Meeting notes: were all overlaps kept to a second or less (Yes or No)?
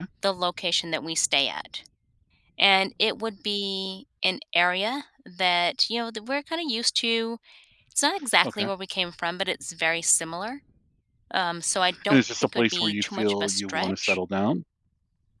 No